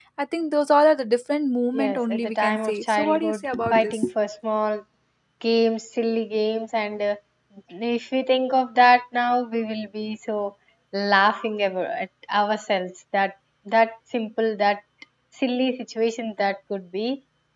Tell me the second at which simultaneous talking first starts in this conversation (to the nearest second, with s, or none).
2 s